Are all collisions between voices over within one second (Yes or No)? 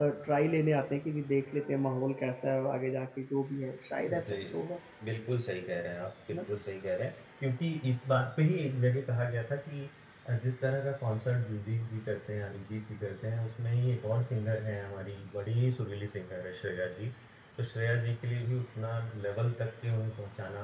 Yes